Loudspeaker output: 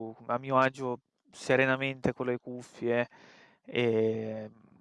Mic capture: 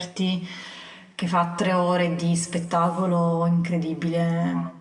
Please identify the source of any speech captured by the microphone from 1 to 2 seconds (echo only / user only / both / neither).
user only